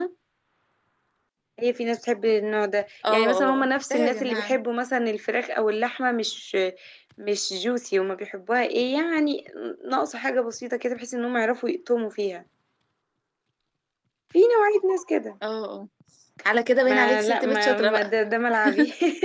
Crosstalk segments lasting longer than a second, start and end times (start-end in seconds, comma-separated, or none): 3.1-4.6, 16.8-18.1